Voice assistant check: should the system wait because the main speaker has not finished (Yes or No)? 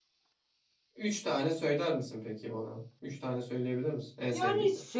No